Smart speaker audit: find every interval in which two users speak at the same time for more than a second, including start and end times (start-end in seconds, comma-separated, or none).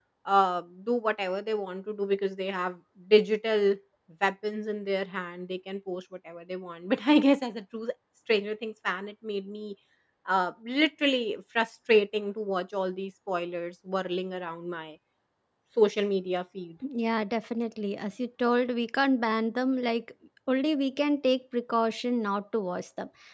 none